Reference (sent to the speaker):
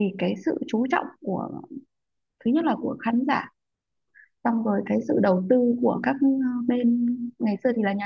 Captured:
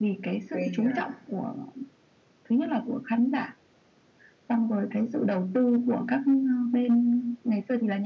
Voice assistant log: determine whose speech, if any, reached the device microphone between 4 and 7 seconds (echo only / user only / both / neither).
echo only